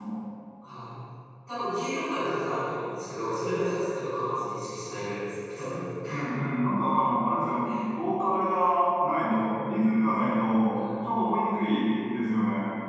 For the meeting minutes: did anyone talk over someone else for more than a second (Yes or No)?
No